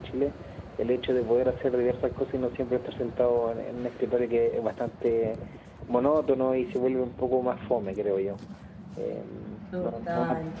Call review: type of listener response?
listening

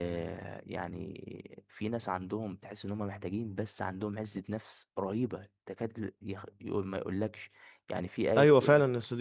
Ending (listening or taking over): taking over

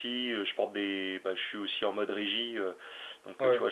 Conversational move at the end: listening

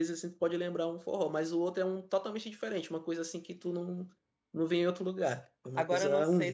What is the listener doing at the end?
taking over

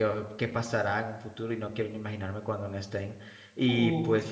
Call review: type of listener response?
listening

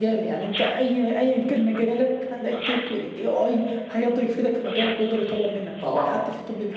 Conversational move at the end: listening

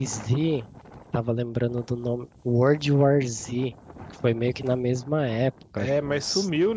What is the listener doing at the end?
taking over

